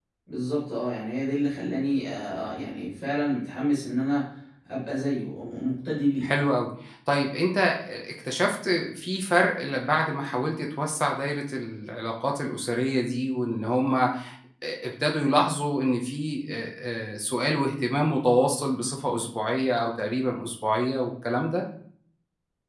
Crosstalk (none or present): none